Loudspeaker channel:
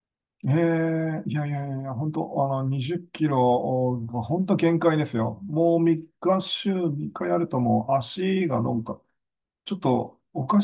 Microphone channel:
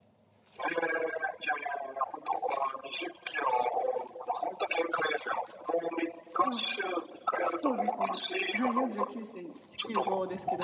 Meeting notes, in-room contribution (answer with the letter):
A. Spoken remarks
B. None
A